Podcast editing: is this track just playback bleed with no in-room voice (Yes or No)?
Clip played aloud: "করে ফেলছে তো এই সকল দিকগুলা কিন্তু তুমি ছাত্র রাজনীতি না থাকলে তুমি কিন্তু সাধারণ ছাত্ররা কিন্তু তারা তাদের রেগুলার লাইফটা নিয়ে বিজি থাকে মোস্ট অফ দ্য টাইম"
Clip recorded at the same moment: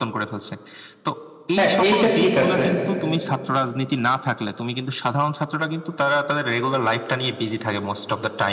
No